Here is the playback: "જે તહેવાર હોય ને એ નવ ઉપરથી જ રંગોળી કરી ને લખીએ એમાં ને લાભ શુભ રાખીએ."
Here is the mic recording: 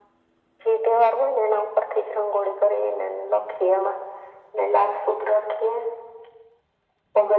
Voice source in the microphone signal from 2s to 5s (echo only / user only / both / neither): echo only